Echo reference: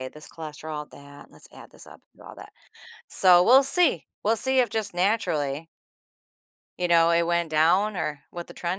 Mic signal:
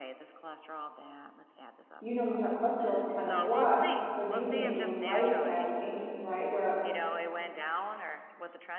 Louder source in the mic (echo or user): user